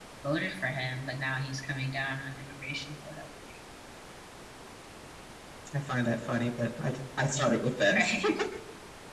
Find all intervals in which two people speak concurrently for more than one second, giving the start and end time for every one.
none

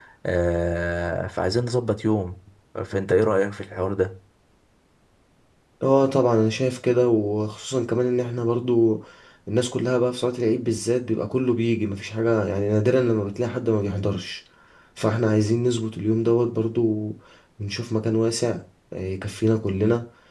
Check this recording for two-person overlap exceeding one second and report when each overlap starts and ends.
none

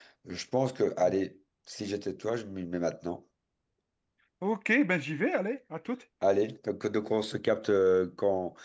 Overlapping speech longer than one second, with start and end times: none

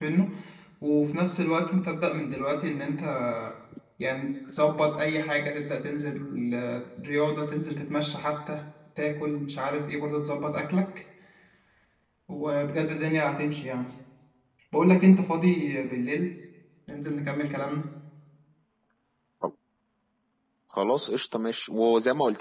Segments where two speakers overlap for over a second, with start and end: none

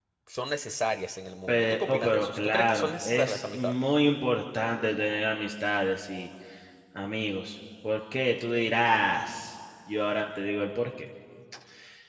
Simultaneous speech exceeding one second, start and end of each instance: 1.5-3.8

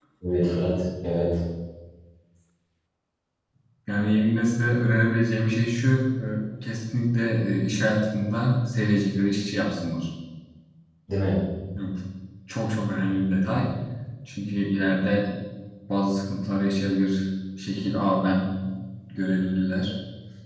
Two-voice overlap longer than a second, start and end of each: none

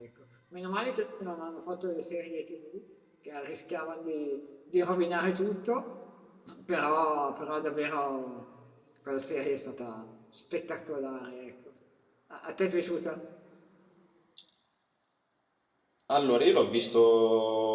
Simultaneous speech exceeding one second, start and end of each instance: none

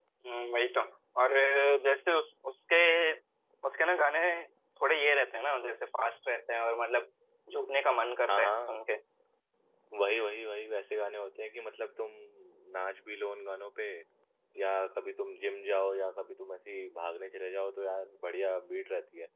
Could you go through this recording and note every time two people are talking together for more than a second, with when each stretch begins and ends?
none

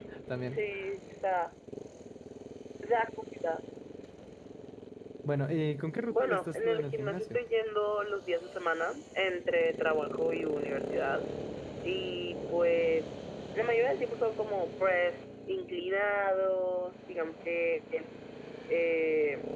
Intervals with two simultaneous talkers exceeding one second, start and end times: 6.1-7.4

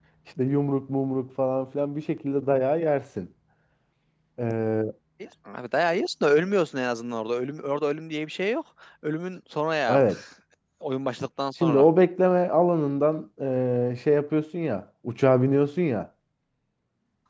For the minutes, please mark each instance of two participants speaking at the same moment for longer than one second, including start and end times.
none

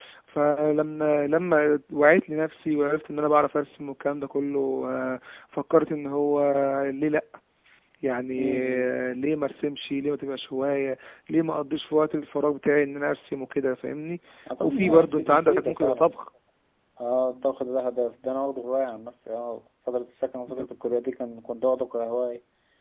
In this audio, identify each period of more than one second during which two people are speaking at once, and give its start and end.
14.6-16.2

